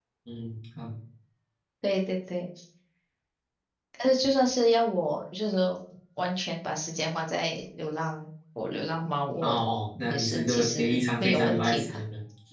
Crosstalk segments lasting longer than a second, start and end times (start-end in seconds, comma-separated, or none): 10.0-12.0